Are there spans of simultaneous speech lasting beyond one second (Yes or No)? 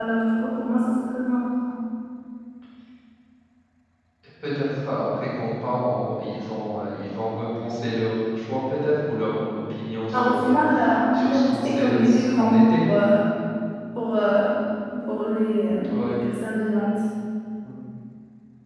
Yes